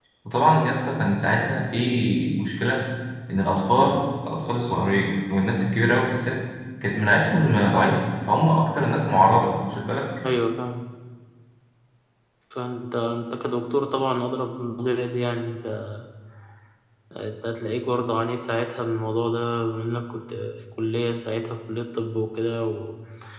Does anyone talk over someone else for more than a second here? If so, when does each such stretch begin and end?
none

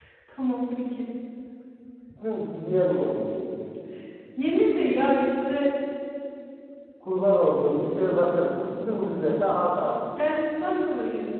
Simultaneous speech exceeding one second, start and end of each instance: none

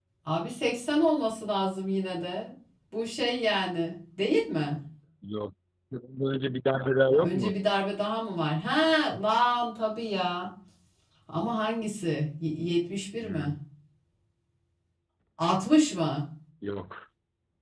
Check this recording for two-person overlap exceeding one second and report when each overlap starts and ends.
none

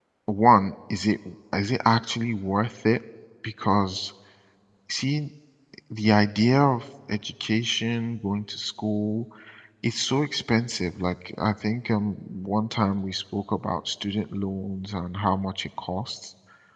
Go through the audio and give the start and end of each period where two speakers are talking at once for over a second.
none

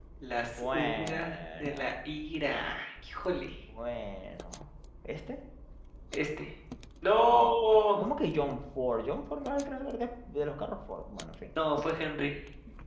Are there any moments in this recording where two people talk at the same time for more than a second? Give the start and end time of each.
0.6-1.9

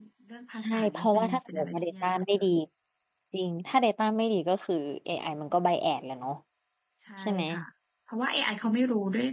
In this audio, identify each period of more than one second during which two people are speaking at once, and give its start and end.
0.6-2.2

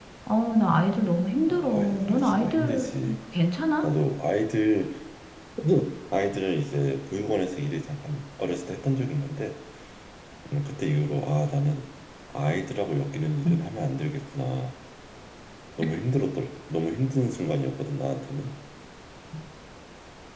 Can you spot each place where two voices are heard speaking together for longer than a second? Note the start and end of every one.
1.5-2.9

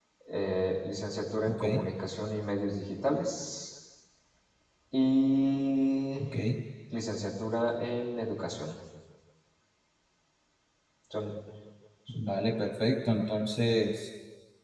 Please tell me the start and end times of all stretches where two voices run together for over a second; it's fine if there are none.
none

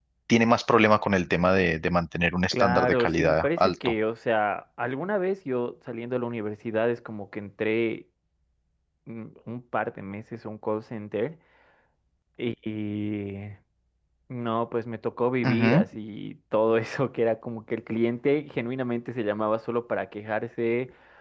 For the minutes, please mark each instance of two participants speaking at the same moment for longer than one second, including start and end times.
2.5-3.9

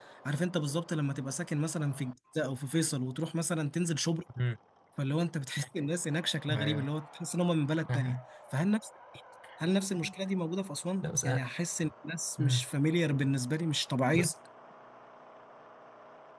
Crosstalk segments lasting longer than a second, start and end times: none

